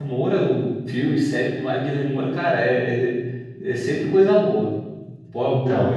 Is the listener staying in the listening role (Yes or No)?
No